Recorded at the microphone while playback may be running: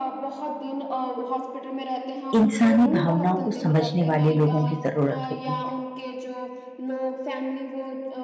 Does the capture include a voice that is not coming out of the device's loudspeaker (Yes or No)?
Yes